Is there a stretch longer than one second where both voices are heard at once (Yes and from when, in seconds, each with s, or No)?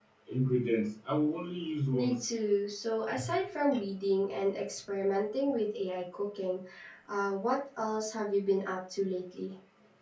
No